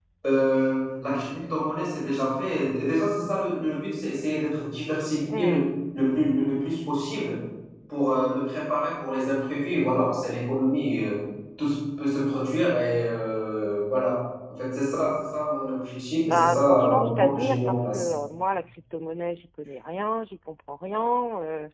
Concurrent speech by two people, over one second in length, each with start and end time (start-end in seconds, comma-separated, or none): 16.3-18.0